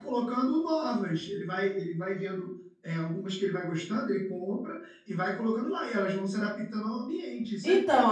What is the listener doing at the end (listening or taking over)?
taking over